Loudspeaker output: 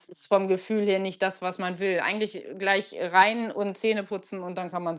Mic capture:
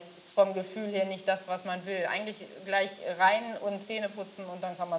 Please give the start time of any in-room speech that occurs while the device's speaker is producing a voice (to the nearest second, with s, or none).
none